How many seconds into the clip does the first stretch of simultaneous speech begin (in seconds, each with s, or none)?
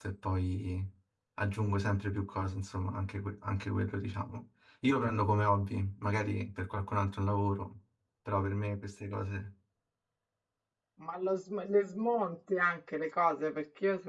none